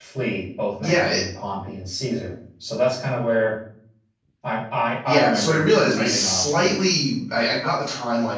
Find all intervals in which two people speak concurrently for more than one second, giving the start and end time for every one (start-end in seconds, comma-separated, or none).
5.0-6.7